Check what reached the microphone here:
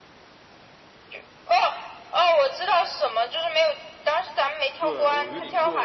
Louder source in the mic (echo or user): echo